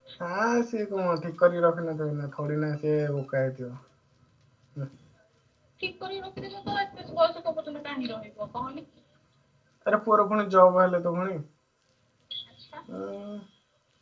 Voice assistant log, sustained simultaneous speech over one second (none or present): none